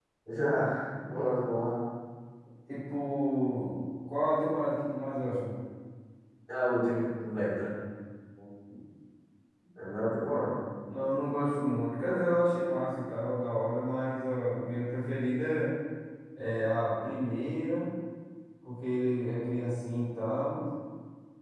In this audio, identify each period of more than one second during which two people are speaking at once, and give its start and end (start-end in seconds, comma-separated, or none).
none